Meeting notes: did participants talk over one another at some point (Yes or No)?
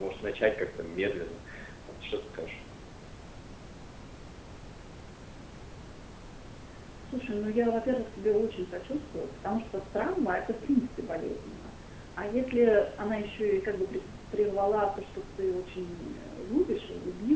No